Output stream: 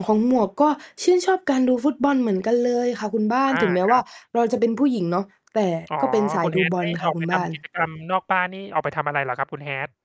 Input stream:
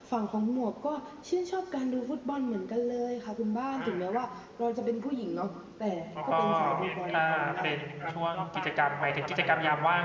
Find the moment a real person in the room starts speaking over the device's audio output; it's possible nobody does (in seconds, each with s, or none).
6.3 s